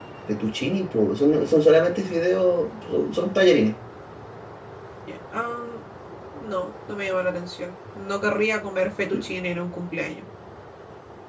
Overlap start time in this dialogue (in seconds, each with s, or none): none